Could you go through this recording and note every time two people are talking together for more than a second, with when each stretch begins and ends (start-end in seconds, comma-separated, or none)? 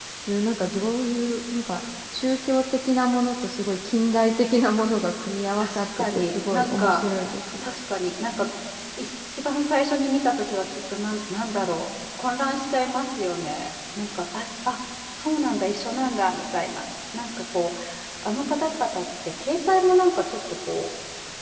5.6-7.1